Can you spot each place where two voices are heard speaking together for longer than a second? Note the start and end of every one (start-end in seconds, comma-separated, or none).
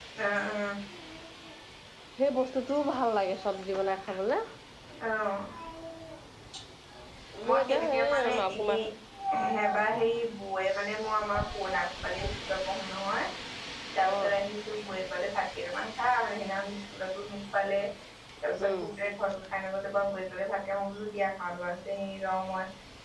7.5-8.8